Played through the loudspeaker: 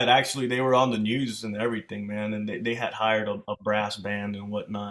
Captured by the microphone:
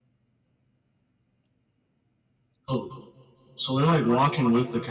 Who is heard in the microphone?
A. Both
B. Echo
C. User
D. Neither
C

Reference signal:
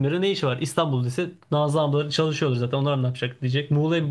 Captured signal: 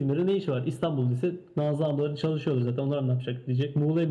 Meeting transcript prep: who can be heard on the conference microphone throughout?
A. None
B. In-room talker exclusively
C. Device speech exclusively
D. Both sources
C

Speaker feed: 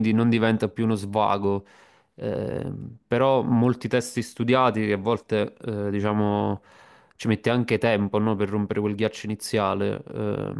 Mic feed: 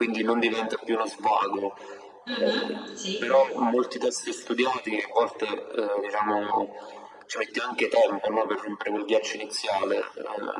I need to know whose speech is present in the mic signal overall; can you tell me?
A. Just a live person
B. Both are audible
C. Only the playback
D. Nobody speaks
B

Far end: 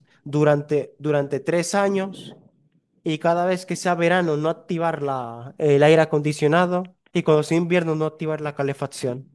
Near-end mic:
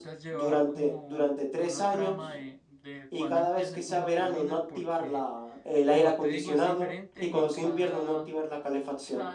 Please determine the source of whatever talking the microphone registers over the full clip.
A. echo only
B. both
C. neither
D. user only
B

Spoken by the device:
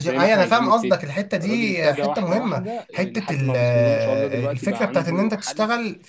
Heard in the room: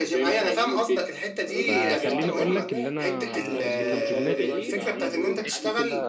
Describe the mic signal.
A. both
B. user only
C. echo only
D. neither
A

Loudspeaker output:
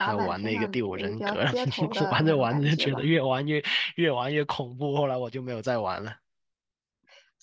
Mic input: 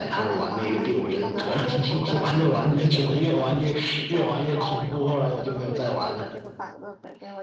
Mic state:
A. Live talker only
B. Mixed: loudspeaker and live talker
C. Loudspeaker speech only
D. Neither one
B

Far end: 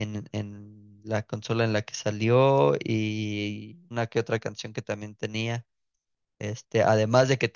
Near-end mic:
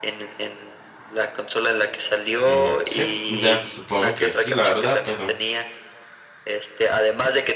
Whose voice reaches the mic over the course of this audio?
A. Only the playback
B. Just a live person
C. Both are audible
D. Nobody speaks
C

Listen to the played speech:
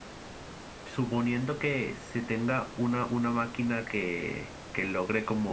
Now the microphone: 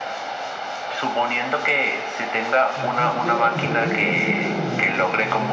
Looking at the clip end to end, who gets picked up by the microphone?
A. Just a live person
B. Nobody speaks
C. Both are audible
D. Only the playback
C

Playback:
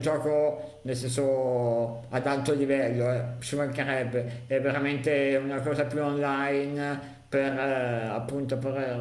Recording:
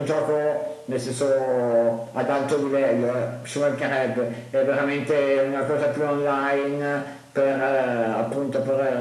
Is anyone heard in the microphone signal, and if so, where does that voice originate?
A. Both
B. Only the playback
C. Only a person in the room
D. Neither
B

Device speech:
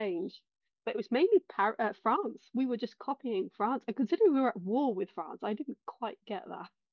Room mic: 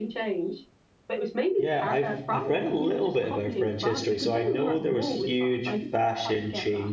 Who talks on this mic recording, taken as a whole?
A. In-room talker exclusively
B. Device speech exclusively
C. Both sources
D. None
C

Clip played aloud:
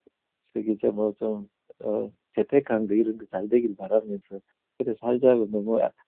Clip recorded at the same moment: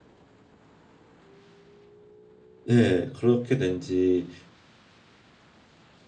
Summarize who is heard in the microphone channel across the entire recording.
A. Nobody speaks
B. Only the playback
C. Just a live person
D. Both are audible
C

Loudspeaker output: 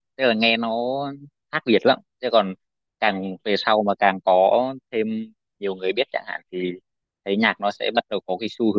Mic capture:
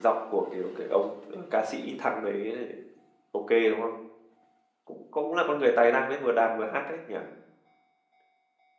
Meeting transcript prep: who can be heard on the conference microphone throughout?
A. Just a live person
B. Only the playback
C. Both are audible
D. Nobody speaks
A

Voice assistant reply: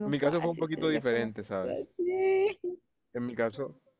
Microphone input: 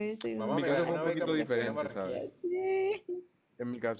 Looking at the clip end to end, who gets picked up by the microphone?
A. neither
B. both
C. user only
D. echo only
B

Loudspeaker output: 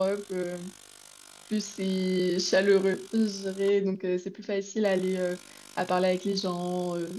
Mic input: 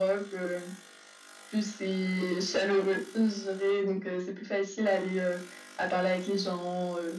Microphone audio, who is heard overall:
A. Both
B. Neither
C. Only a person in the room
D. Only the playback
D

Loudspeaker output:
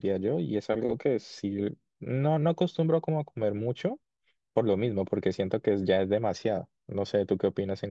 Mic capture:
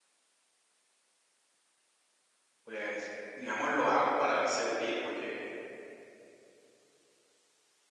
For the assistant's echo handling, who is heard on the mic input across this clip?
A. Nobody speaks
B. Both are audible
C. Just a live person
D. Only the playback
C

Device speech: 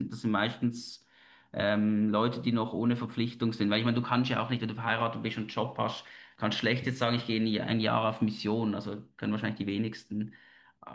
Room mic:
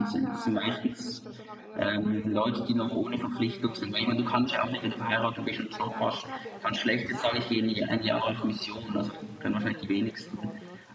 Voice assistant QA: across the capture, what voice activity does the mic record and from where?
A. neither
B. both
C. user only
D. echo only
B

